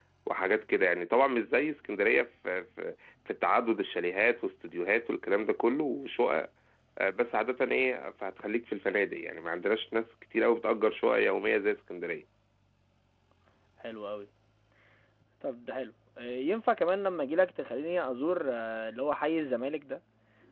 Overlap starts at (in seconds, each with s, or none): none